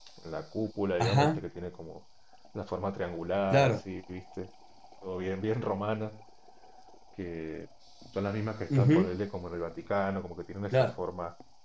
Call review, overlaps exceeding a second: none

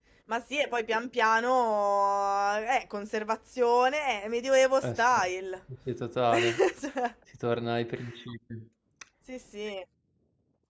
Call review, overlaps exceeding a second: none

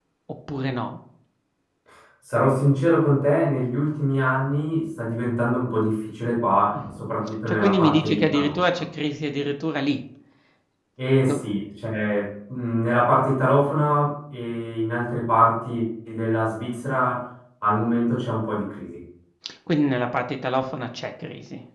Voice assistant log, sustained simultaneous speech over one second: present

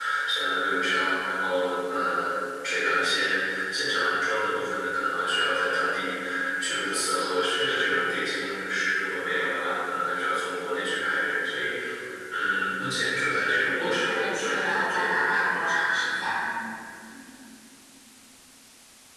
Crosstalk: present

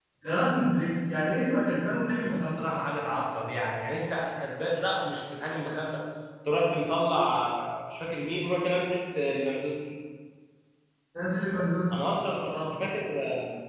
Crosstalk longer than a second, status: none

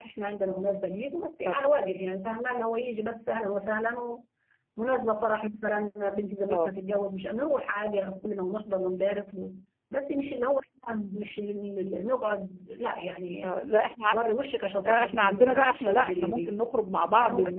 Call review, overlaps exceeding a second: present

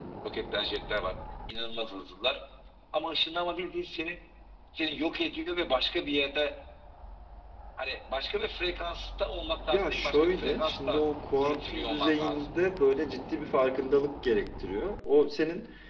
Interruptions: present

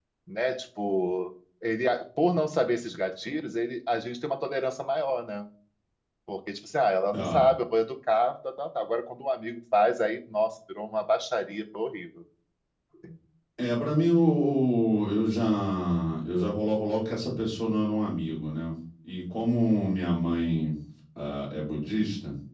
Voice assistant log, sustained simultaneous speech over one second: none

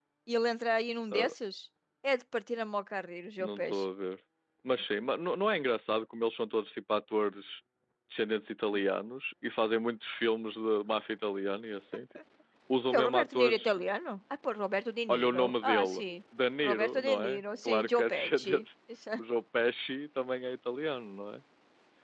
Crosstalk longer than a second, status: present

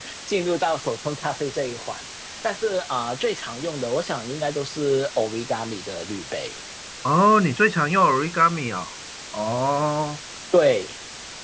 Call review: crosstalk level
none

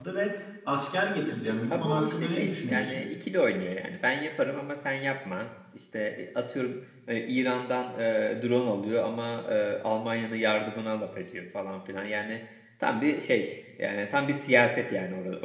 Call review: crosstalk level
present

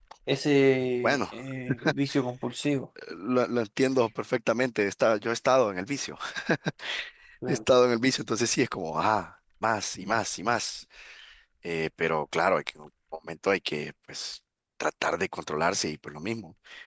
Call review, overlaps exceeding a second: none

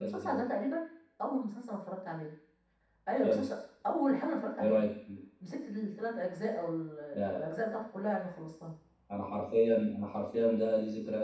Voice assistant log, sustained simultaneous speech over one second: none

